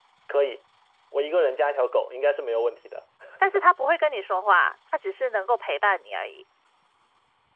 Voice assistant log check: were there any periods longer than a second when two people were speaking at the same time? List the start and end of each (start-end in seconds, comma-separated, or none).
none